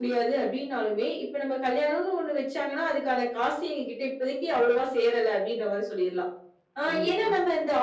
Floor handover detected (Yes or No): No